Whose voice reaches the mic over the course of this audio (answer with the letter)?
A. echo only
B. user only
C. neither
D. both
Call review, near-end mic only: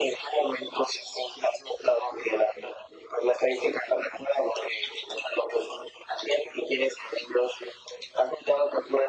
A